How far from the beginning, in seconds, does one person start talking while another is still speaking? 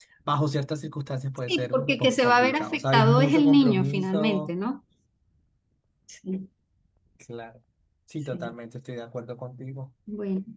1.5 s

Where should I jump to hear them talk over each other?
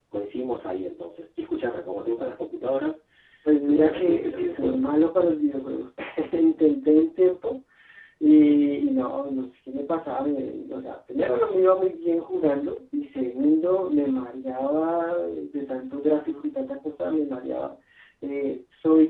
3.6 s

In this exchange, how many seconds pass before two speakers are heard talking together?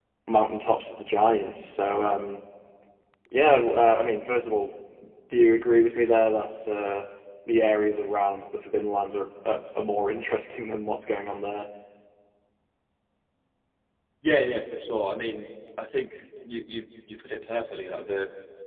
none

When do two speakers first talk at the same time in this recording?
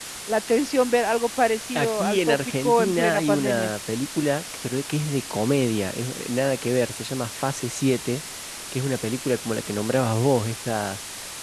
1.8 s

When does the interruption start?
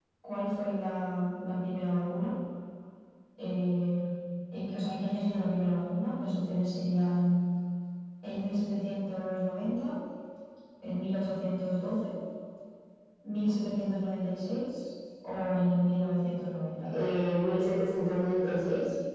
none

